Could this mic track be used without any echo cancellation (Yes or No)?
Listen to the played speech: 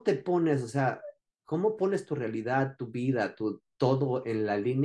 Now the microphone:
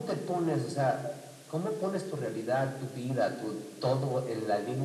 No